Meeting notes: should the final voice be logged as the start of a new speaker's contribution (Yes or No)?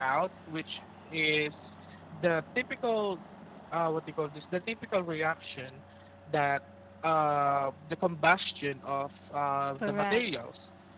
No